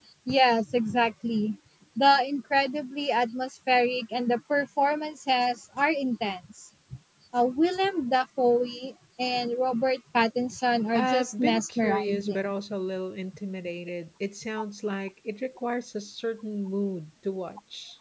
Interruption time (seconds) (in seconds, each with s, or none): 10.9 s